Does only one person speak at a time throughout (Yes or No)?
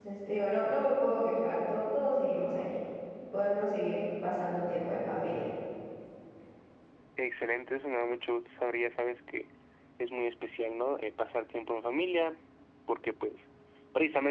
Yes